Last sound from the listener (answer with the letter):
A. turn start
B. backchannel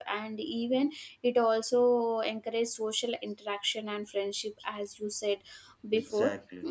B